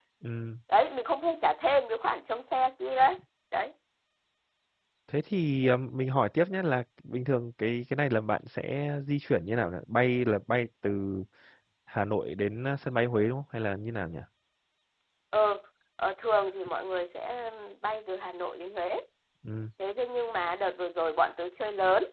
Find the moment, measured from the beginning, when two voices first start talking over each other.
none

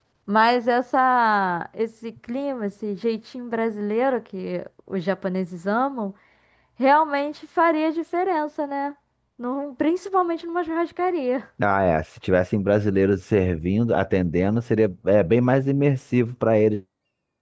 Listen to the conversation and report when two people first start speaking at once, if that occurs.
none

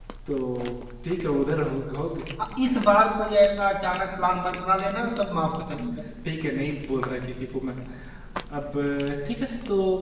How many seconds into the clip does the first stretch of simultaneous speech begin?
none

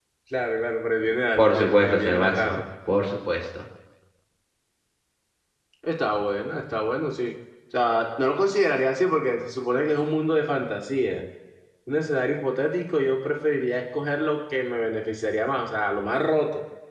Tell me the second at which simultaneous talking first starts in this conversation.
1.4 s

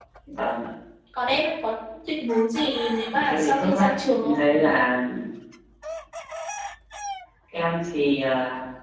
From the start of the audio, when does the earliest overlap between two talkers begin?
3.1 s

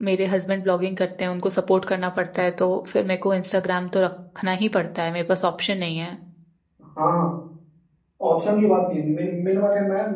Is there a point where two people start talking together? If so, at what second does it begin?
none

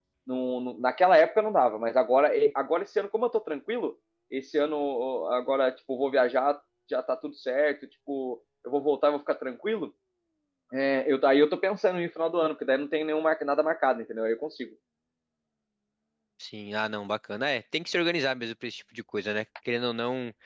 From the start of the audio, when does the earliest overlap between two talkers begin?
none

